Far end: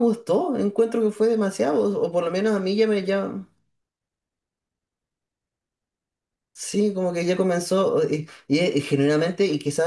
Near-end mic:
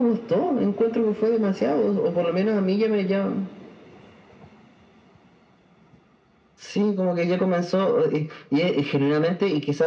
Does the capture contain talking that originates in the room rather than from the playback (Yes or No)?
No